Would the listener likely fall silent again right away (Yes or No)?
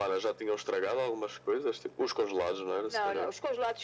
No